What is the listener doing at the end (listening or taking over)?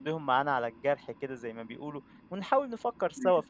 listening